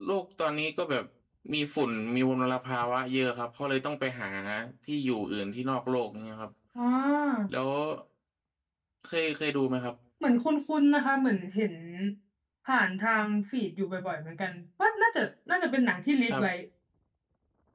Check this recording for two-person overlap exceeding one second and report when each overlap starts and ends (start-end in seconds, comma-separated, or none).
none